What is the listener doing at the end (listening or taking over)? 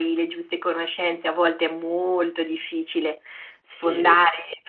listening